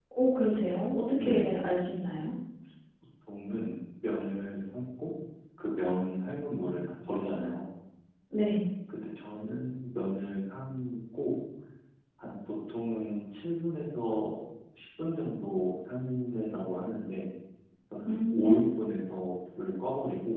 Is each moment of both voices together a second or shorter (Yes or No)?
Yes